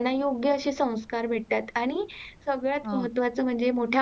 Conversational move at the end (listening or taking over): listening